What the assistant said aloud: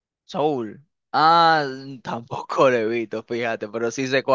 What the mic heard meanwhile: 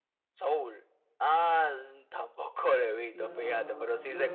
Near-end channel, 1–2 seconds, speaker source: echo only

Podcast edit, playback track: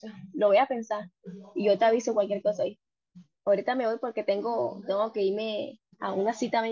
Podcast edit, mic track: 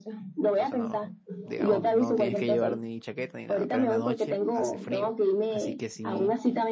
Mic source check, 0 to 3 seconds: both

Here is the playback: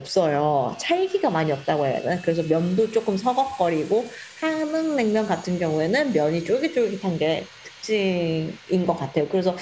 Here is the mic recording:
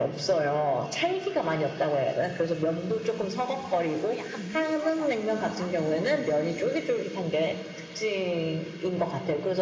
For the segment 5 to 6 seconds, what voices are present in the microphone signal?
both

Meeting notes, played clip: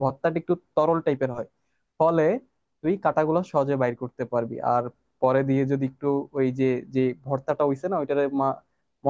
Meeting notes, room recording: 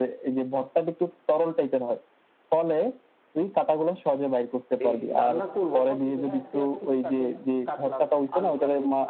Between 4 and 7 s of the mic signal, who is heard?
both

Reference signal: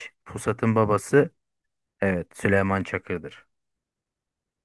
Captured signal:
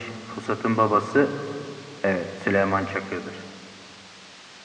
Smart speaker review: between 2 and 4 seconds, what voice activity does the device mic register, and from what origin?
echo only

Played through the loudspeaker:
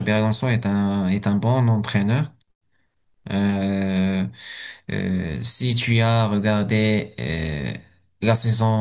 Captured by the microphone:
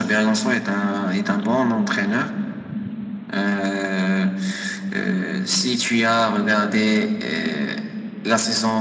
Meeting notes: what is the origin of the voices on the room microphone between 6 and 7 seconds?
echo only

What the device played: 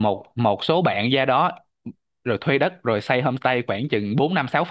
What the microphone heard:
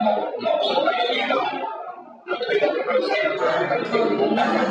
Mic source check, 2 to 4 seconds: both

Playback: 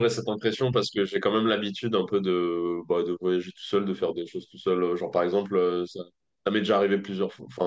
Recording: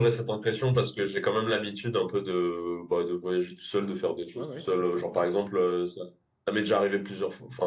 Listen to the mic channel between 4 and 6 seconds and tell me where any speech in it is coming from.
both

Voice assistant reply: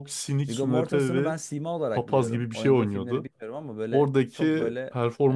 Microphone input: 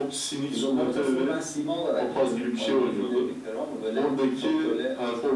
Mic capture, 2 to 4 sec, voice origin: echo only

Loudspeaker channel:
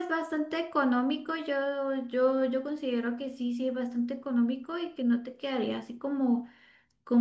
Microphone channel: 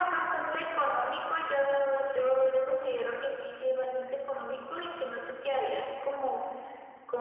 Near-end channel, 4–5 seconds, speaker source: echo only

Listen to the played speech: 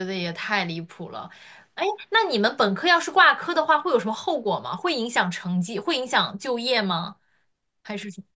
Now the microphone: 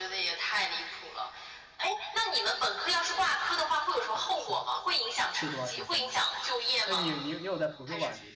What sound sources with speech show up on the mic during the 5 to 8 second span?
both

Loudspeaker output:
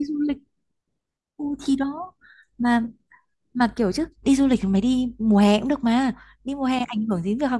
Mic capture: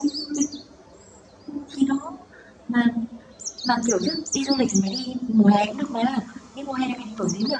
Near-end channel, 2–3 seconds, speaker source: echo only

